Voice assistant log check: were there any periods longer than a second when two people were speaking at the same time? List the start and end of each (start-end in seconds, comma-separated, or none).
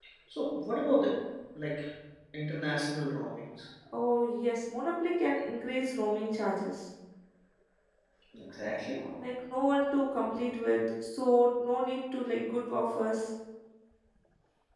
none